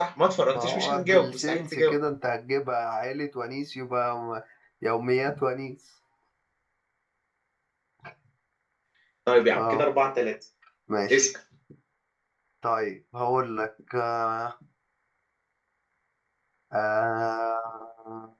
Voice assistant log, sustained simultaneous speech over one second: present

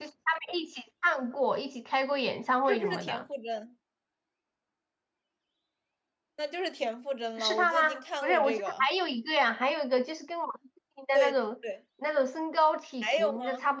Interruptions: present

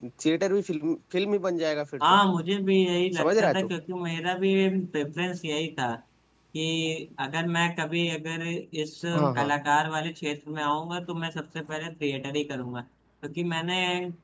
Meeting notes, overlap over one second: none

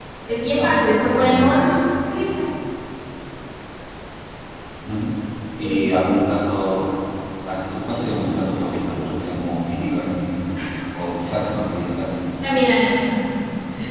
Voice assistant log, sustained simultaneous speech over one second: present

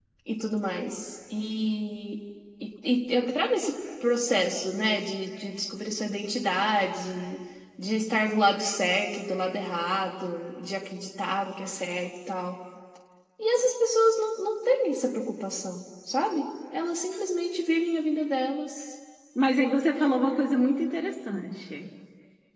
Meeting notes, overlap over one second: none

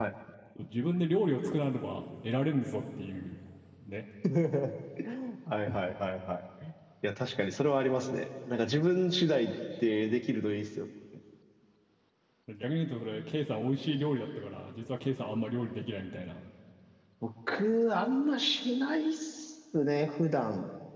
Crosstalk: none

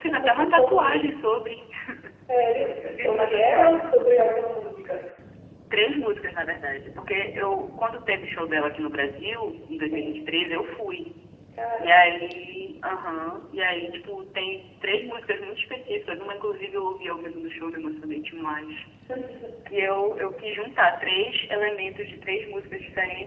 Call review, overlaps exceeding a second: present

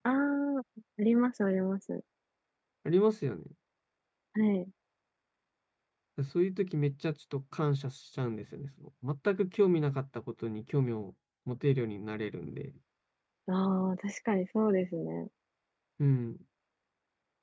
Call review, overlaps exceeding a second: none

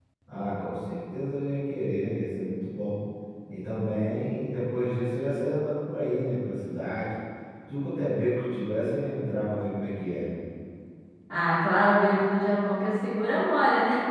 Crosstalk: none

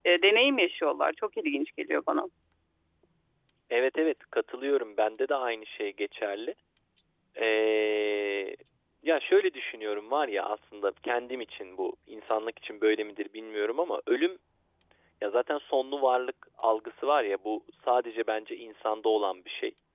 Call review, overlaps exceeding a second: none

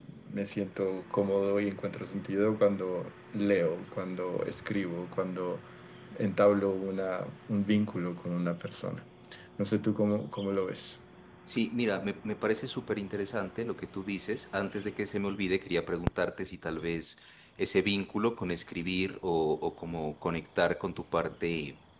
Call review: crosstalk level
none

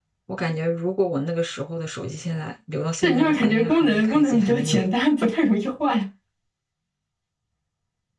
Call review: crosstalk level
present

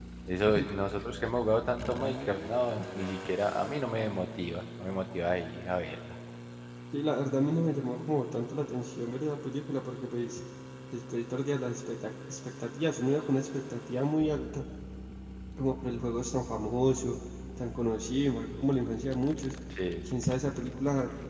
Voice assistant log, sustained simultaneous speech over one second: none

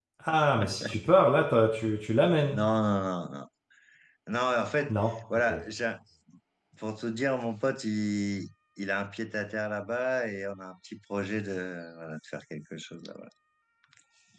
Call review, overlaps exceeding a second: none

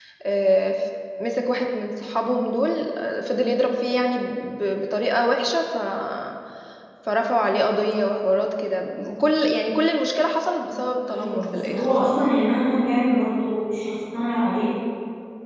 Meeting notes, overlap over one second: present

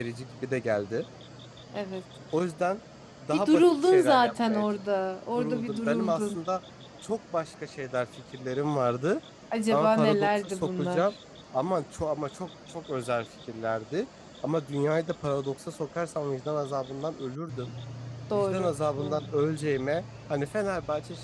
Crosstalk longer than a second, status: present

